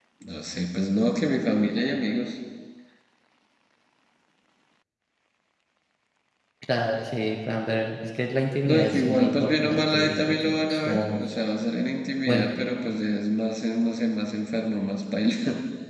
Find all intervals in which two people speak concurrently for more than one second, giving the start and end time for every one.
8.7-11.2

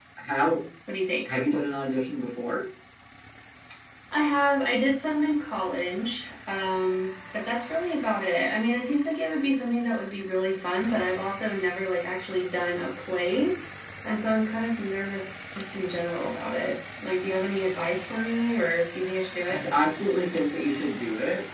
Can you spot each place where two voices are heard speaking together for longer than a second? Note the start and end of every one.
none

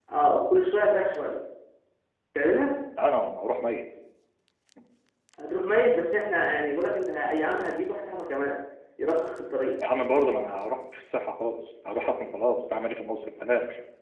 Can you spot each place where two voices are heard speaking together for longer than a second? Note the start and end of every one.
none

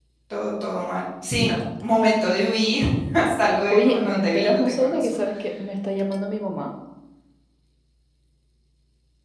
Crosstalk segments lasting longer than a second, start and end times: 3.7-5.1

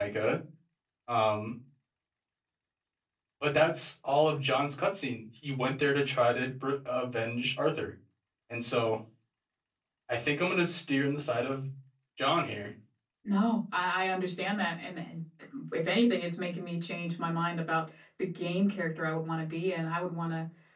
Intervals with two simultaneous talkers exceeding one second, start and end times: none

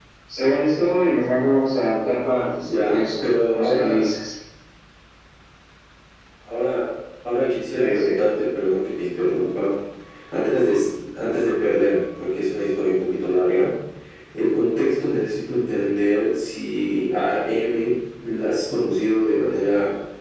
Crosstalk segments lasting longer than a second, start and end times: 2.6-4.0

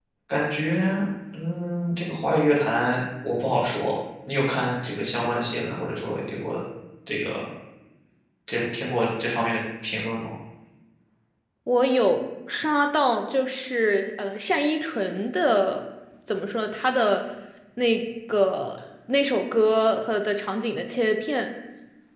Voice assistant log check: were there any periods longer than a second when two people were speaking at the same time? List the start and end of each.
none

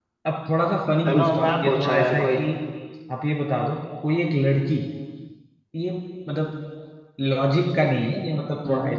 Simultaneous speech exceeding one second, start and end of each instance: 1.0-2.3

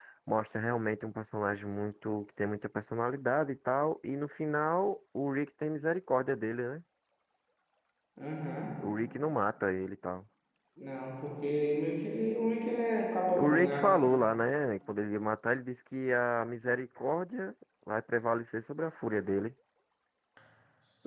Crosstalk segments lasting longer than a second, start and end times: none

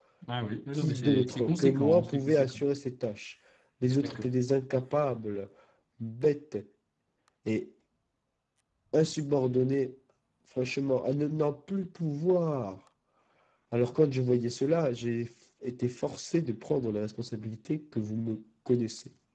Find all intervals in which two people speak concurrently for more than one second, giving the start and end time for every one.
0.7-2.6

